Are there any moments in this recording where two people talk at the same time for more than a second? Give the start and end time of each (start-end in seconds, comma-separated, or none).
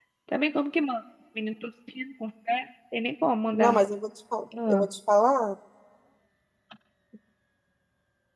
none